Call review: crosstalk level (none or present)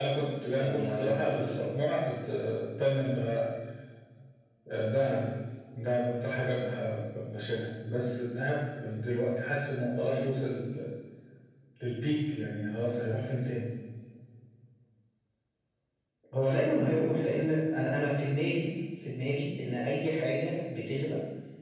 present